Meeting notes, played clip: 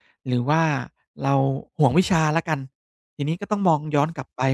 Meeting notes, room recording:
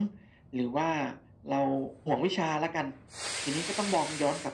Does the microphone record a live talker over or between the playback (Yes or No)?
No